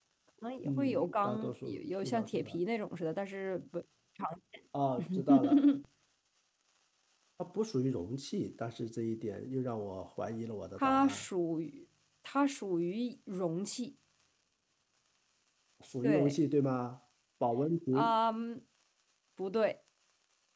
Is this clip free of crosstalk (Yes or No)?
No